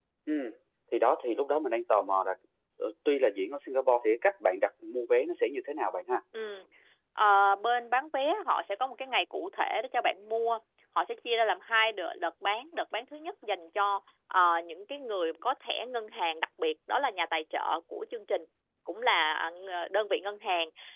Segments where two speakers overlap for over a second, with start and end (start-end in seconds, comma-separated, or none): none